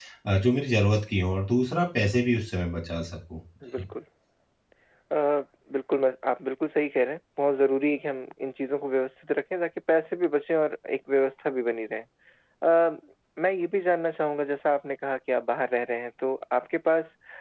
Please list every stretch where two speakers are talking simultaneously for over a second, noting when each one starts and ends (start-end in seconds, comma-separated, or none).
none